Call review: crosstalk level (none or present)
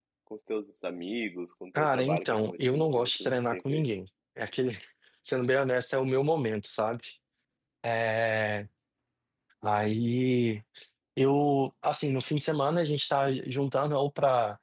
present